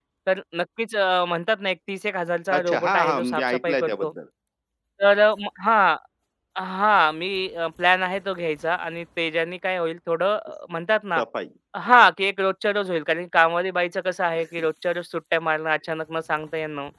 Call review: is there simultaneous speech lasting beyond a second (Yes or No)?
Yes